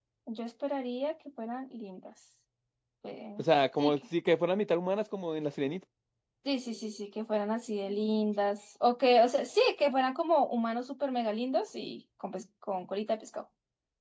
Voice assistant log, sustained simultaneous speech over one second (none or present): none